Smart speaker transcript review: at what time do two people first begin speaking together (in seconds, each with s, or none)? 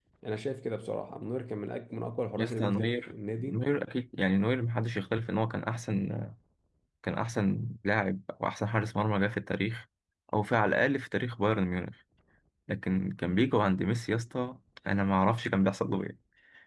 2.4 s